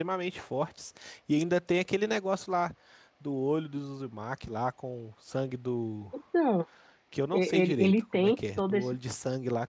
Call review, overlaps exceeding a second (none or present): present